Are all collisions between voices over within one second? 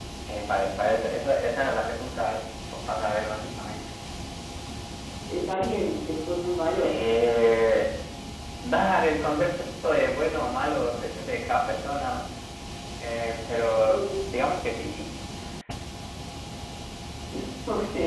Yes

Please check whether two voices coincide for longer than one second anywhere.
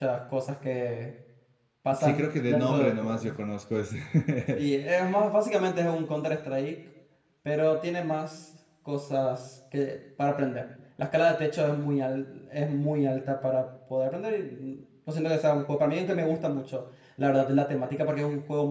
Yes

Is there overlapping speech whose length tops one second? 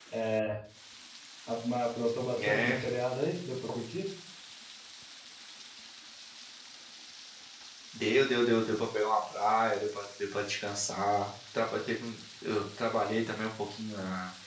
No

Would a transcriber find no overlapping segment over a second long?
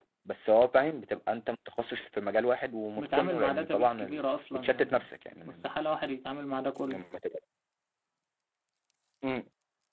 No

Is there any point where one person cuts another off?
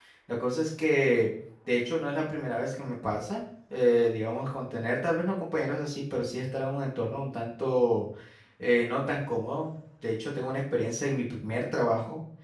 No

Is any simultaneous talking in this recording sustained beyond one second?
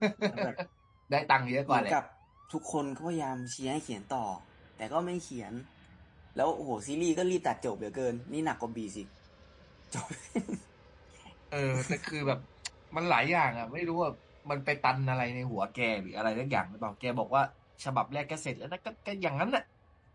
No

